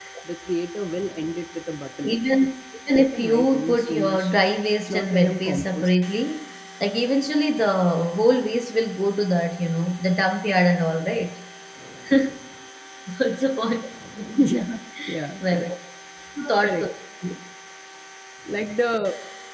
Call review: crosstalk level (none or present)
present